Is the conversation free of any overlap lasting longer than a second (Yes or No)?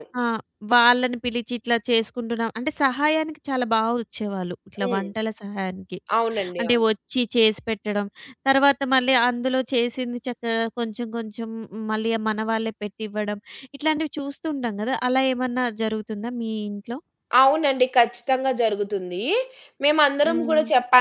Yes